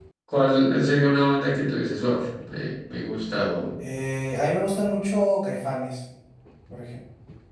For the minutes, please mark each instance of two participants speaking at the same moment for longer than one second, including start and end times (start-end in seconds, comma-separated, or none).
none